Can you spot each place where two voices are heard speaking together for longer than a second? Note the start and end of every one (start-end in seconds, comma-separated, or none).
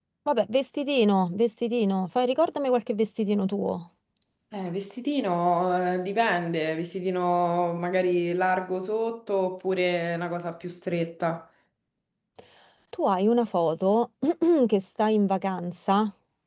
none